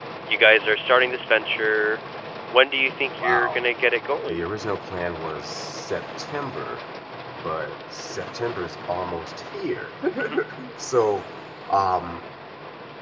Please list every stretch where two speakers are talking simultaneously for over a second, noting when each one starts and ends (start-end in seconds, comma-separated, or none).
none